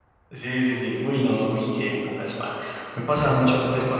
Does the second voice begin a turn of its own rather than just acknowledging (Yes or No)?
No